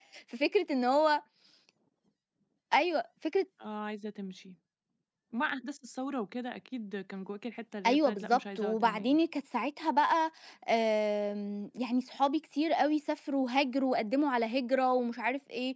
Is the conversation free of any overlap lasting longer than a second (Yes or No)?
No